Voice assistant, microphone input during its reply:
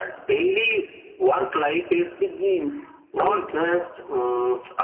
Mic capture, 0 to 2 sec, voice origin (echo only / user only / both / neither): echo only